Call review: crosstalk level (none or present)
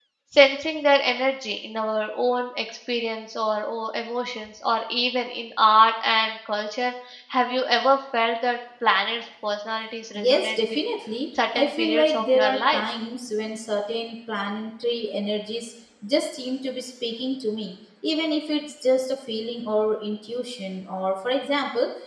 present